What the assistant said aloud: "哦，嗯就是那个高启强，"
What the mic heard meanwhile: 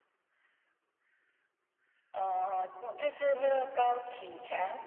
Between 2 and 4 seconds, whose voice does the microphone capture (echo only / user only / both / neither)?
echo only